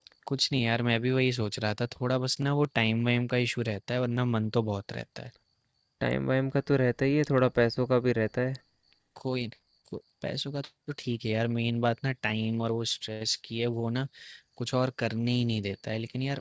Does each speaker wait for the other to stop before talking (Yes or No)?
Yes